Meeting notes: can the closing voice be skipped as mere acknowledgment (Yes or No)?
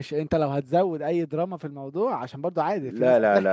No